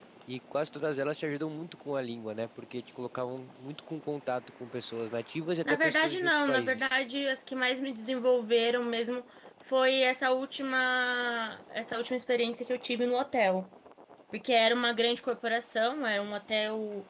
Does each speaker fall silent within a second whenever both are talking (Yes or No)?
No